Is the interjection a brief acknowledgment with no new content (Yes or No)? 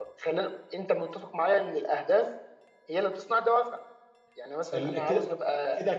No